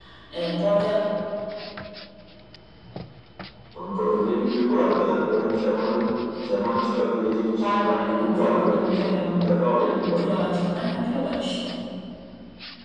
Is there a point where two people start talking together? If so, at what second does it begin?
8 s

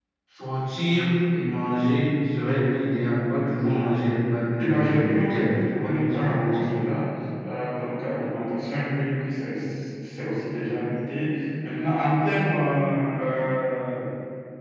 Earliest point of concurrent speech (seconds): 5 s

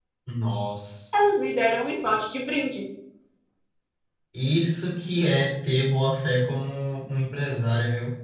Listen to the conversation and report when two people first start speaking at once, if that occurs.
none

